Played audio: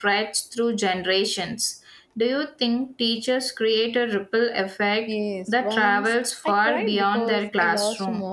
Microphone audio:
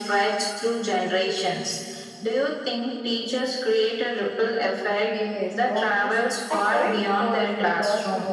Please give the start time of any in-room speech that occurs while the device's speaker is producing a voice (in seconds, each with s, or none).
none